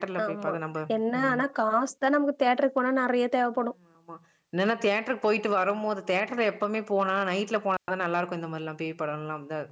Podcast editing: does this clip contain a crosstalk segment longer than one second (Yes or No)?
No